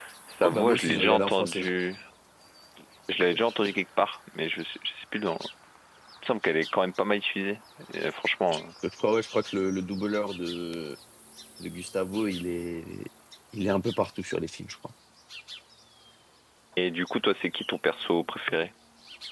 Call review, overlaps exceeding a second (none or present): present